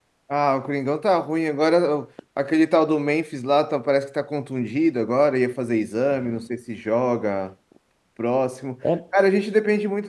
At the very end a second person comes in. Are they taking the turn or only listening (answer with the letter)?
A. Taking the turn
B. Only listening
B